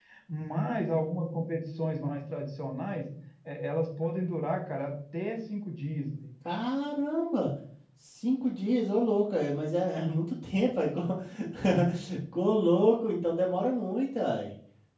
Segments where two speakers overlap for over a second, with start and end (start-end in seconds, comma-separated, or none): none